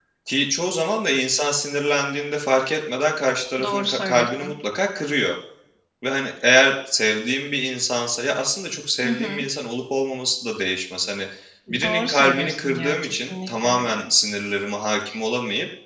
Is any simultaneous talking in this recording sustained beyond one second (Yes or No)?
Yes